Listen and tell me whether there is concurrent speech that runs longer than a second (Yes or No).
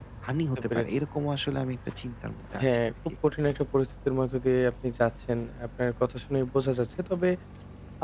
No